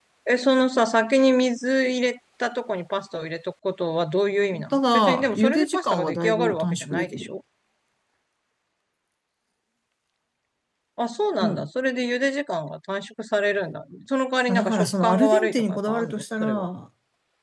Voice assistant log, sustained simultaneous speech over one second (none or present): present